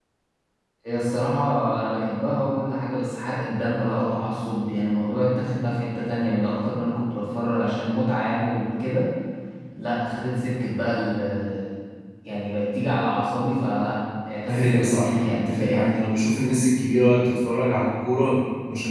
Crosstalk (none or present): present